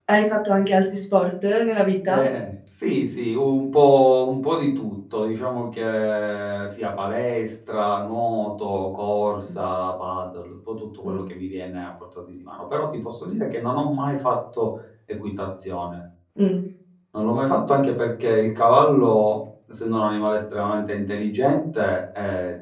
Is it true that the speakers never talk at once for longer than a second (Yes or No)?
Yes